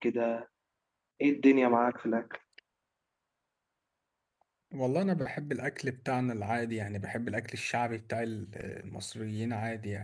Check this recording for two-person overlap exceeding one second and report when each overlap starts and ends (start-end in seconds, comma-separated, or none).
none